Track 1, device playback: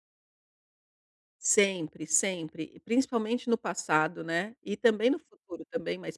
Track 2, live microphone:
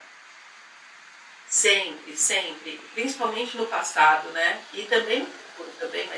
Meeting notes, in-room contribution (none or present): none